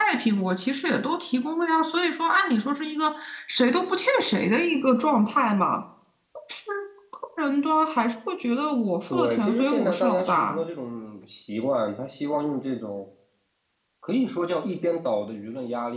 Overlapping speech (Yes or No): Yes